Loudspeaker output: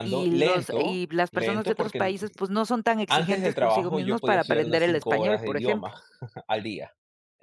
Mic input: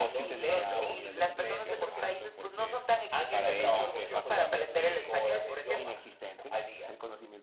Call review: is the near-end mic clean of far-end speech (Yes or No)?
No